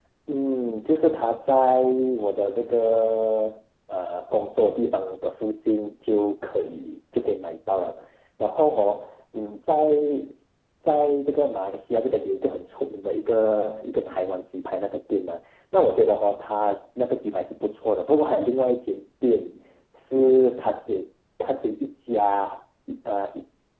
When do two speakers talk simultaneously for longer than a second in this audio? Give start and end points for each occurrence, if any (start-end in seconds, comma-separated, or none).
none